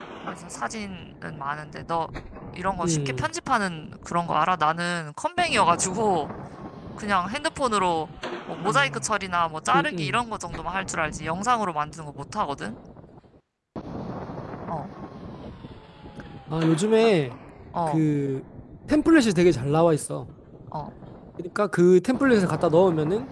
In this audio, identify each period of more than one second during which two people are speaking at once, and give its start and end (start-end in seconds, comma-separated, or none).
none